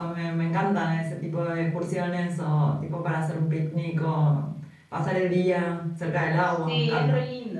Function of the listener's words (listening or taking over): taking over